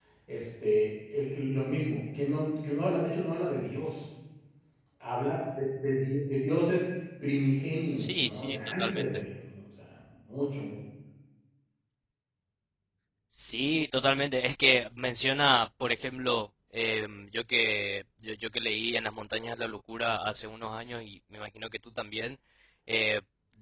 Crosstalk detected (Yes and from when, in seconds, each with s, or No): Yes, from 8.0 s